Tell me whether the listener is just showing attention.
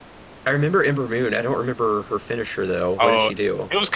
No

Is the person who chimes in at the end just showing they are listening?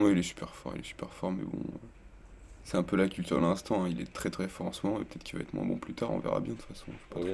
No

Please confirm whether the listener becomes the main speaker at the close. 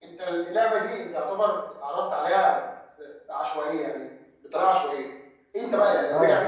No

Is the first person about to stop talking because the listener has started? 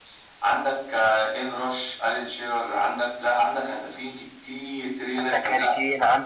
Yes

